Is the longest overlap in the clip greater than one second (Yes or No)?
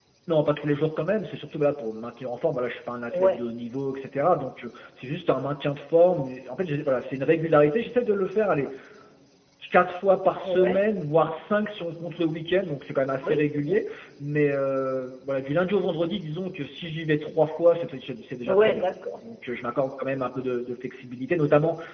No